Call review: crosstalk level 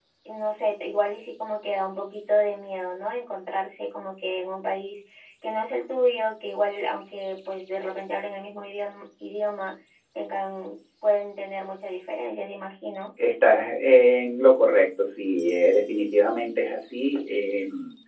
none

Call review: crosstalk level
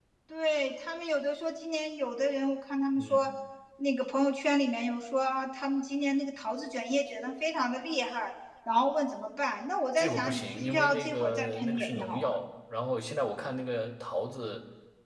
present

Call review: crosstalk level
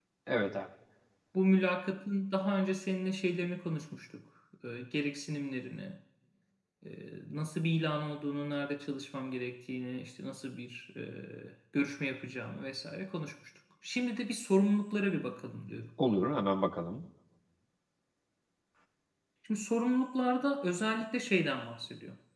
none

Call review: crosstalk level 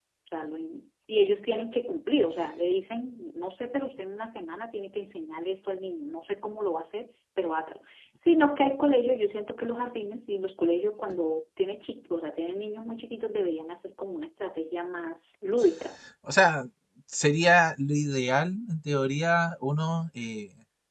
none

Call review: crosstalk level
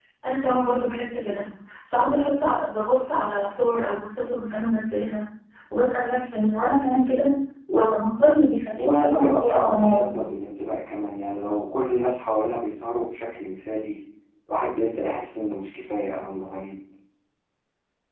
present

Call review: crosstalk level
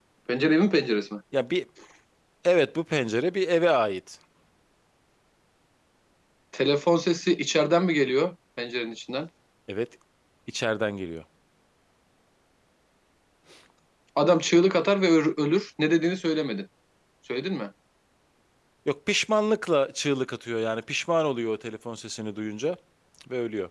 none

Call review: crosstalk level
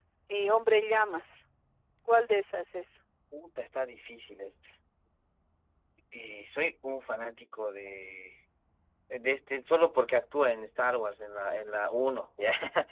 none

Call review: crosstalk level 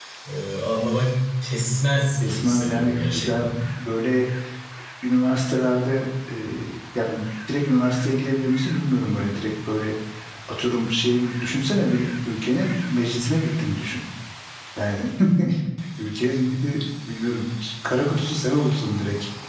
present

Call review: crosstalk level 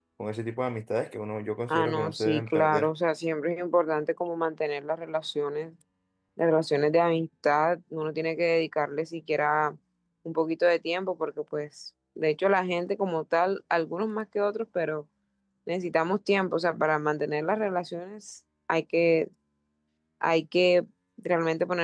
present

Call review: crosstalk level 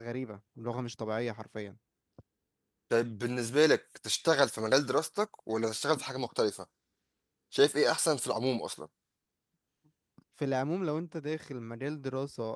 none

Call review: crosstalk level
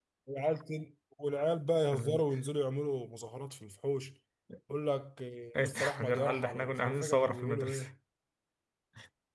present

